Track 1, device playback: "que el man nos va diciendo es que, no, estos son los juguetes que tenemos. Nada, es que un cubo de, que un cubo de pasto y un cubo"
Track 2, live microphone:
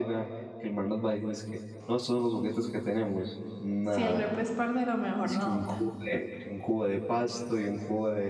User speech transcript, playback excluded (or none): si el repre es parcero, mejor no nota.